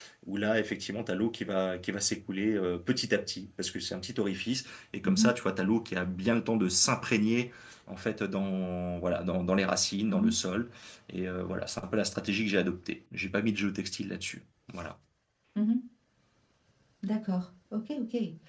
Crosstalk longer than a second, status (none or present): none